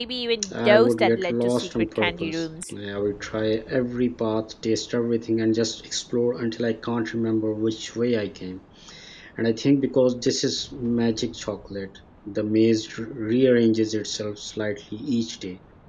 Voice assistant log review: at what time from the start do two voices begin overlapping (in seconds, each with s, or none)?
0.5 s